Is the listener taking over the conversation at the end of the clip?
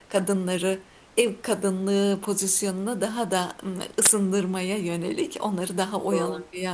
No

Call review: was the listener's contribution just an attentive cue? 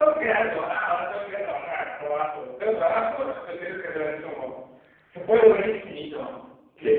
Yes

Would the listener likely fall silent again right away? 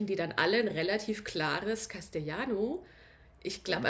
Yes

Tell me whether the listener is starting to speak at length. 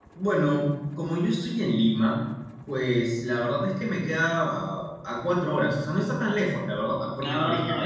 No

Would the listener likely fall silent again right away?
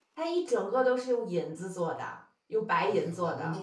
No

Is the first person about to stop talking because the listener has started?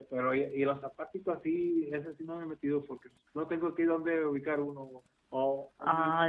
No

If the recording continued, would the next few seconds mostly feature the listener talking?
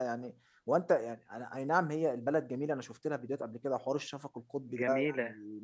No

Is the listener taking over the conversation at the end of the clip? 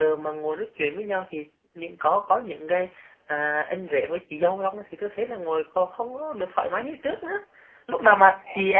No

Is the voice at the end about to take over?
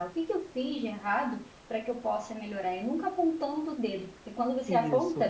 No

